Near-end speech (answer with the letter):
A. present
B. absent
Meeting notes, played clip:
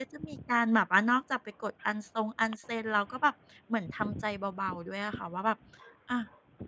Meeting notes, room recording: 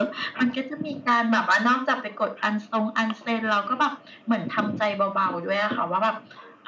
B